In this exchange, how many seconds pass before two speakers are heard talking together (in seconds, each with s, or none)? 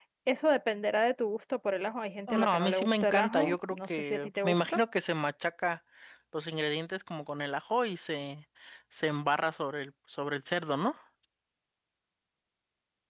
2.3 s